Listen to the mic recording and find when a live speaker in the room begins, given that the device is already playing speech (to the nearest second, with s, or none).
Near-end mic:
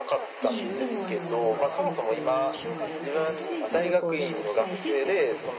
0 s